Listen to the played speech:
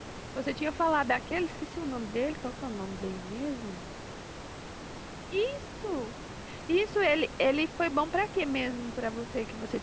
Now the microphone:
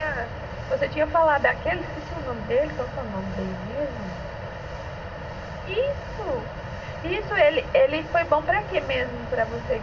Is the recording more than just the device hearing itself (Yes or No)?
No